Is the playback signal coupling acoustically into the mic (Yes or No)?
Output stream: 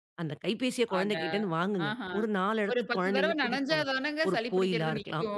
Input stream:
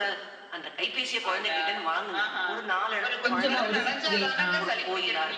Yes